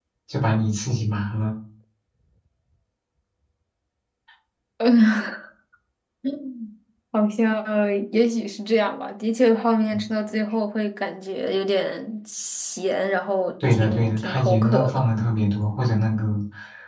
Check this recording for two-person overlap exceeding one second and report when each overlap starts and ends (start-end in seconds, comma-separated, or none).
13.6-15.1